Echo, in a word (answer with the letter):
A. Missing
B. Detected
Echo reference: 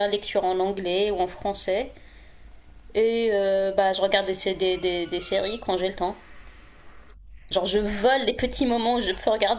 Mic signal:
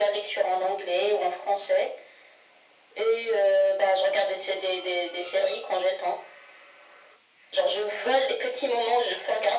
B